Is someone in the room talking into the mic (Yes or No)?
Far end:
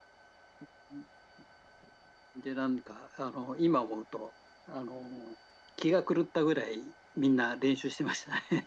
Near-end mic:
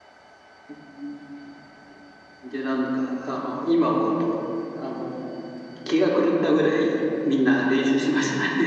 No